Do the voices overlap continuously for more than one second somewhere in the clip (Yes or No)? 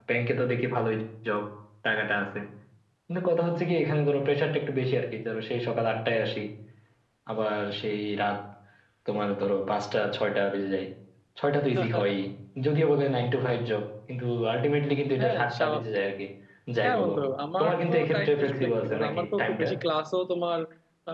Yes